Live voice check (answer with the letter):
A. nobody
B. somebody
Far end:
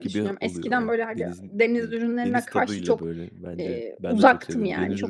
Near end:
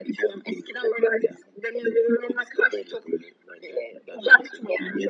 A